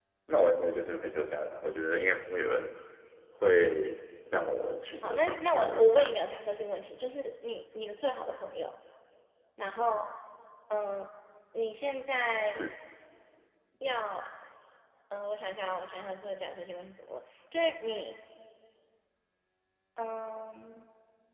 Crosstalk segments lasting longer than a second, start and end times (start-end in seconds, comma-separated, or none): 4.9-6.2